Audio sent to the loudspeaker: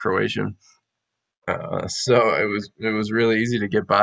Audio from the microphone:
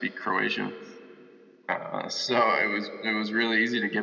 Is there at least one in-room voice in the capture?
No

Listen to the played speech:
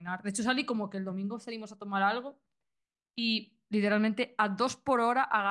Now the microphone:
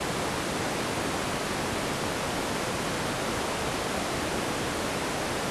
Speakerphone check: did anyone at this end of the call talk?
No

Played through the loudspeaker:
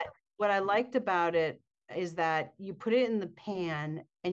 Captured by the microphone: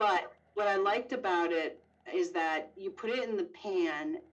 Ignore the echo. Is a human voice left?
No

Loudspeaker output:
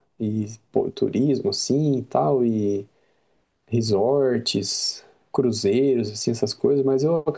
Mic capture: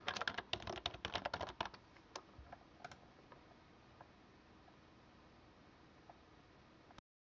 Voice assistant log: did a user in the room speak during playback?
No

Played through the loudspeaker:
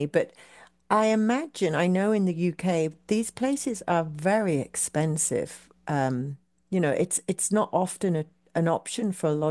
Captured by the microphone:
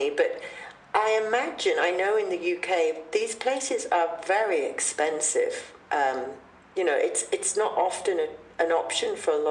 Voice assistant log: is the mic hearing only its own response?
Yes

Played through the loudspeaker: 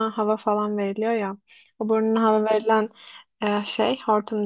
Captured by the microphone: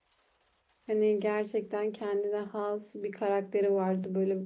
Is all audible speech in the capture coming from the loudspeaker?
No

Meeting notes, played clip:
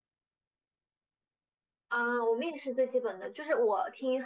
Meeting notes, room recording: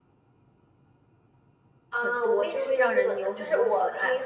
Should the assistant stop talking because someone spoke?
Yes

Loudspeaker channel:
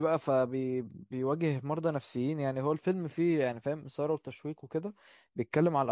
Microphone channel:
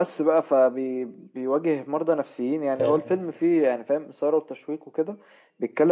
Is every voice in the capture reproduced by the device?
No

